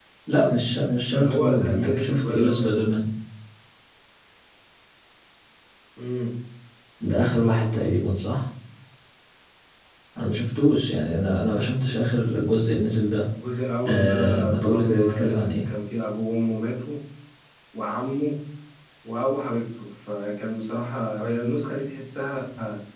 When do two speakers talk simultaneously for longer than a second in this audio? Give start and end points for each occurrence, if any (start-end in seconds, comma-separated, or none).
1.1-2.8, 13.8-15.6